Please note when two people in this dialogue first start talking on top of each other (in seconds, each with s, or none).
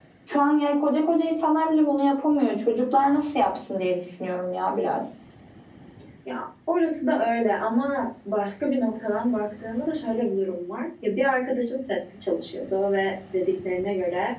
none